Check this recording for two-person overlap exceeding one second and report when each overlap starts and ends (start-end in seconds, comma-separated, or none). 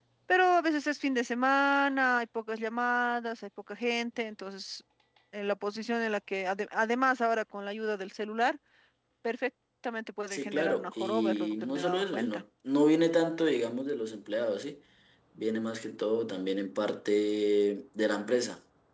10.3-12.4